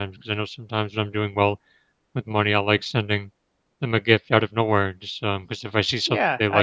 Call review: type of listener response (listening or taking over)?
taking over